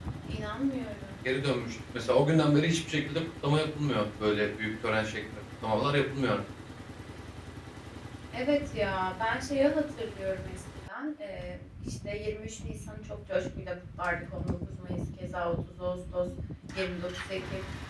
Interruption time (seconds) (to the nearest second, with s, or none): none